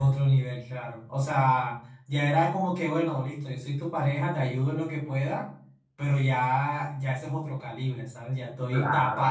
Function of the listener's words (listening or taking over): listening